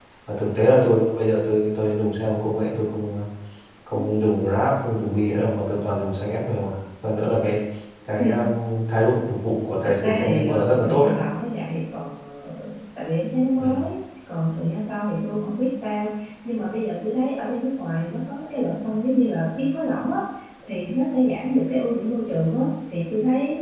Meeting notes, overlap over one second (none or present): present